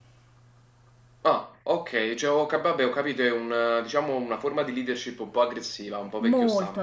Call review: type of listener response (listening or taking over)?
taking over